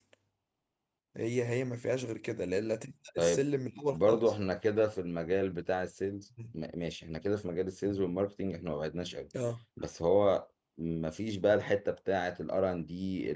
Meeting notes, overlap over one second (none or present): none